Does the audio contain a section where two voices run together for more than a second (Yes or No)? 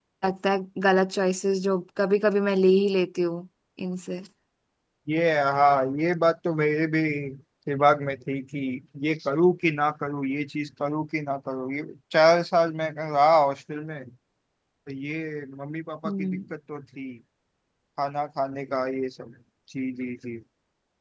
No